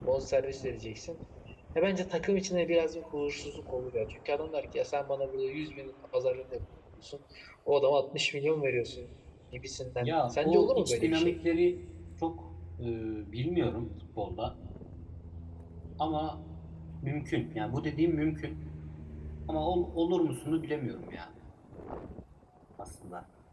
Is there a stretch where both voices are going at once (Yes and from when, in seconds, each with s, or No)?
Yes, from 10.0 s